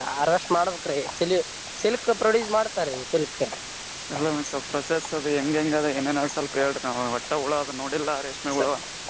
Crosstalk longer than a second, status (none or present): none